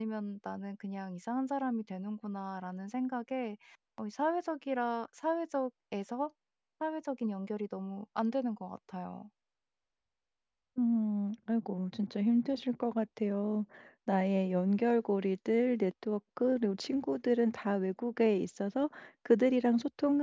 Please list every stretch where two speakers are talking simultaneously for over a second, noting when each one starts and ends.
none

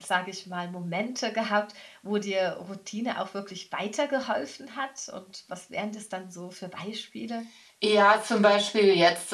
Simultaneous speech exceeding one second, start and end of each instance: none

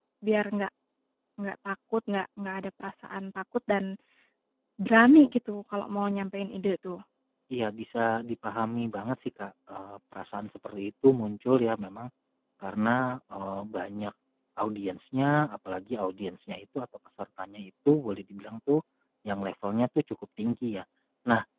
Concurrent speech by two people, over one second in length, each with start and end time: none

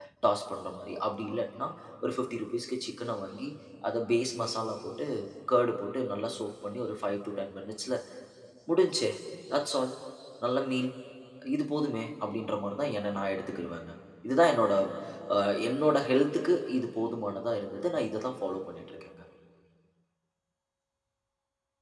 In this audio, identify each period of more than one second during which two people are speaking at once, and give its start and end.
none

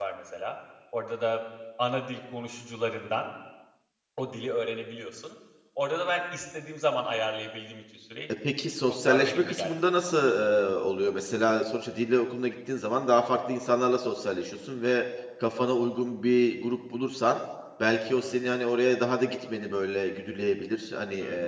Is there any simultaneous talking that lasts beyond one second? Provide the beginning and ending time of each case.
8.9-10.3

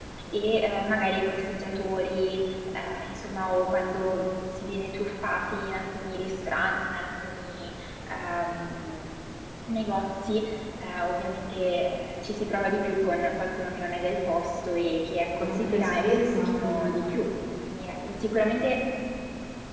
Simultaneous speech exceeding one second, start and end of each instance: 15.4-17.1

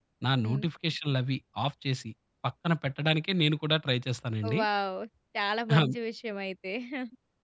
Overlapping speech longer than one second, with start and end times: none

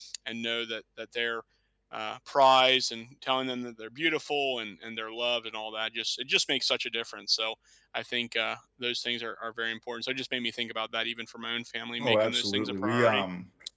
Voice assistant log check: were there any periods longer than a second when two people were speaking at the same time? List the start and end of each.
12.0-13.2

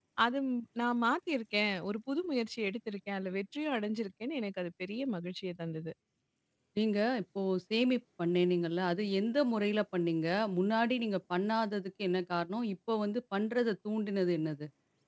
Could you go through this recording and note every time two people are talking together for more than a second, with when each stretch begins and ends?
none

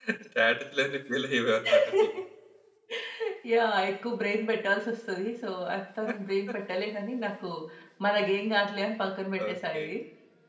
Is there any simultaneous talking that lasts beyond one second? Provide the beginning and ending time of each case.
none

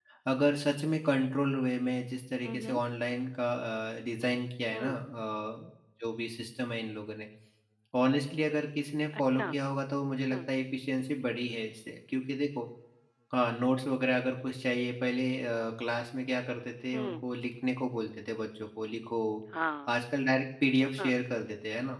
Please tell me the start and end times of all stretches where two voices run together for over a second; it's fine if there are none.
none

